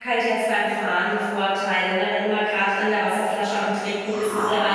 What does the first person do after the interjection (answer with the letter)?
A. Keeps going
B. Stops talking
B